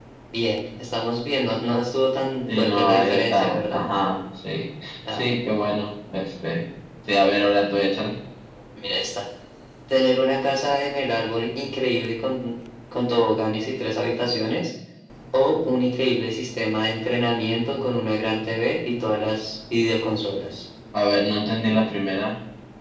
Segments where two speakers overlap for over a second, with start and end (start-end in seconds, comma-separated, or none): 2.6-3.8